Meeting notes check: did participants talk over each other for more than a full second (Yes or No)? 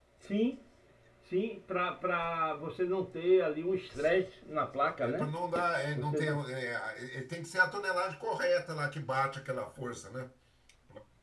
No